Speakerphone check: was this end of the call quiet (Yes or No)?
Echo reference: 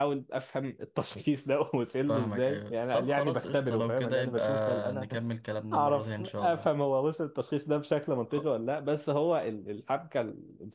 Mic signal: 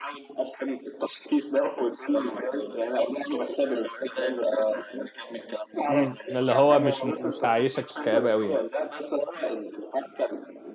No